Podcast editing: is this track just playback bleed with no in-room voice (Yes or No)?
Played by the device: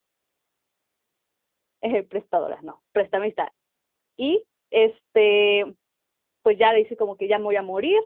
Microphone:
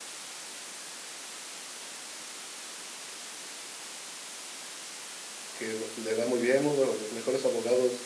No